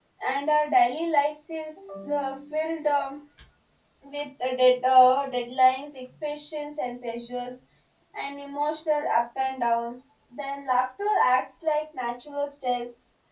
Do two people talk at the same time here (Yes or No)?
No